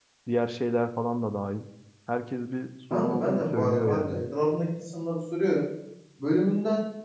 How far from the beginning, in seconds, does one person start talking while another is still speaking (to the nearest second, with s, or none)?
3 s